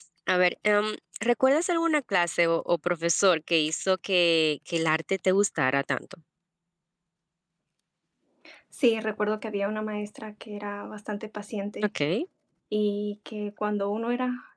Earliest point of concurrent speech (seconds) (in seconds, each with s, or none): none